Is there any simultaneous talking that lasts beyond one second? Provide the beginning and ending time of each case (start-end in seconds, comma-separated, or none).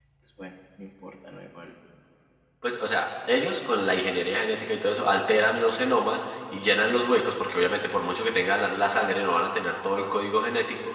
none